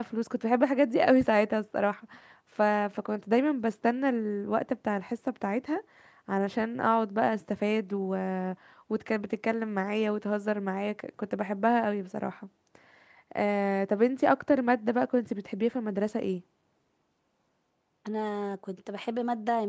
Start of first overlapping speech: none

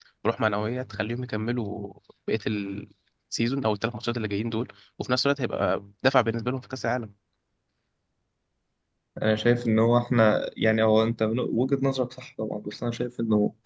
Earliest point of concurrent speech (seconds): none

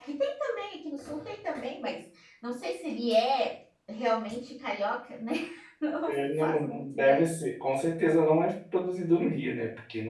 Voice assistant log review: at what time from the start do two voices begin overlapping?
6.1 s

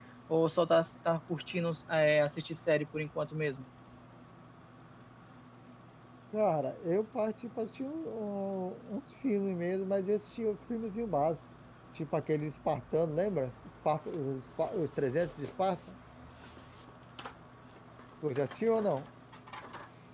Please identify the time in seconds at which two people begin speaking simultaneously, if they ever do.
none

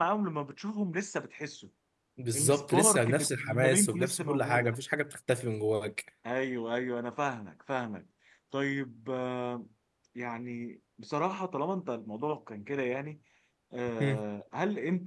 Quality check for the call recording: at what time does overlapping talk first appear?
2.3 s

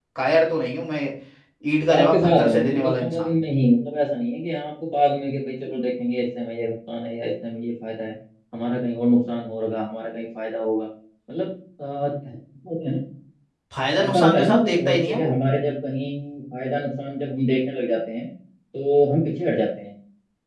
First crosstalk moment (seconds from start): 1.9 s

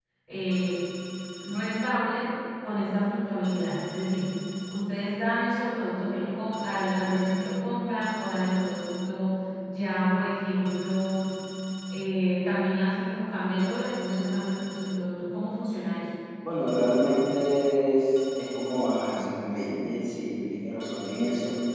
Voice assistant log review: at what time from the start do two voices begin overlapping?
none

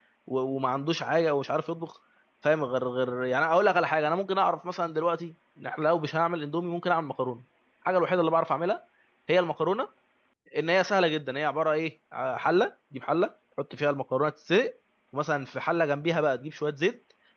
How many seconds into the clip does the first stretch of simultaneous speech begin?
none

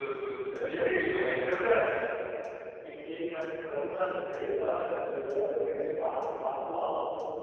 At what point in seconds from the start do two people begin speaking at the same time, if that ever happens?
none

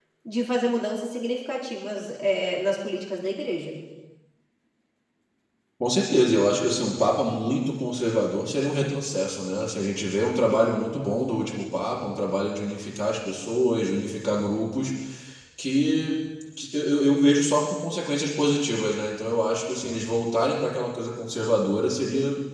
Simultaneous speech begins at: none

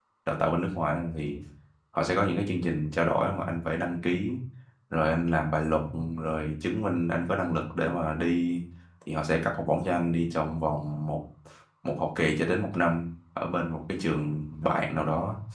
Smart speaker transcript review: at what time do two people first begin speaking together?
none

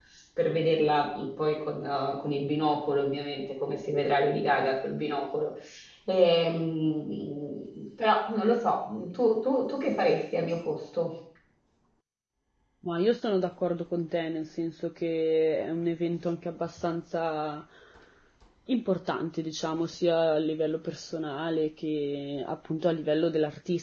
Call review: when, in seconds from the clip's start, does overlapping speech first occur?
none

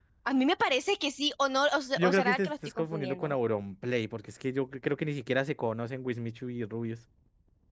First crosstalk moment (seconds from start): 2.0 s

